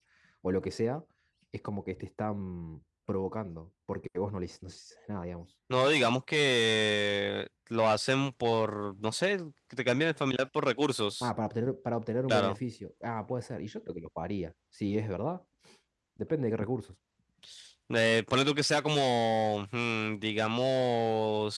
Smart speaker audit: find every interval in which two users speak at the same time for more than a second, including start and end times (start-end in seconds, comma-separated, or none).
none